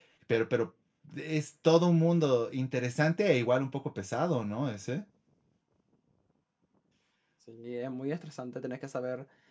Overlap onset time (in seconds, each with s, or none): none